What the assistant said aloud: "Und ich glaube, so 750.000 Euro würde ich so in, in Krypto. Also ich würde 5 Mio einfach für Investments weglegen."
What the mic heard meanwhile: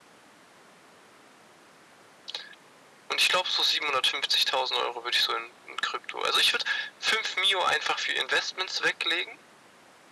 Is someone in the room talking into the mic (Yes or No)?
No